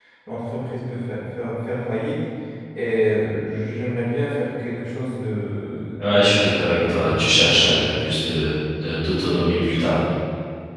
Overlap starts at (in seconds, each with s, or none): 6.0 s